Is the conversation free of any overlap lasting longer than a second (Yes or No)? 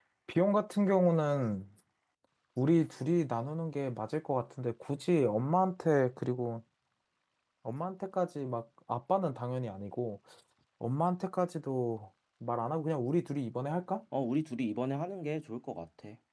Yes